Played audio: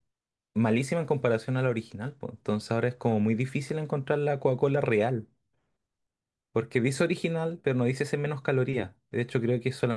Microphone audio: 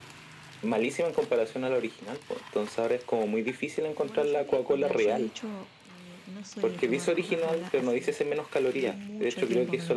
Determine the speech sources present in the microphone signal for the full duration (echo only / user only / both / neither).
both